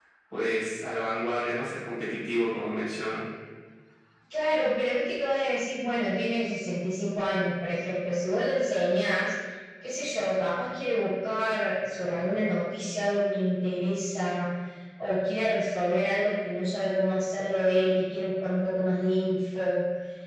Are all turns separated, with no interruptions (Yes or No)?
Yes